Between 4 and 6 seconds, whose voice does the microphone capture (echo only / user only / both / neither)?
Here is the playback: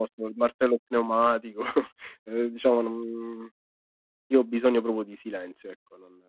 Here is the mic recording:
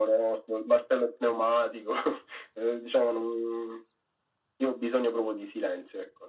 echo only